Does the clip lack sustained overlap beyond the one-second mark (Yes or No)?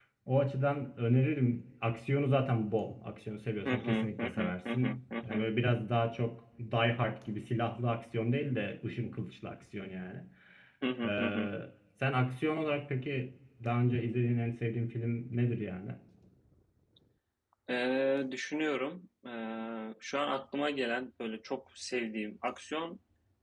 No